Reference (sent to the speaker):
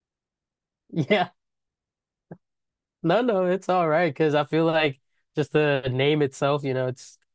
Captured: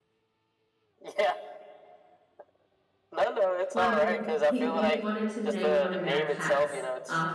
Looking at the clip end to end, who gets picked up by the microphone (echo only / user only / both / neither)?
both